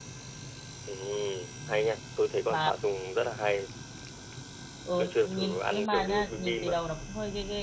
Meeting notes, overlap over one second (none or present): present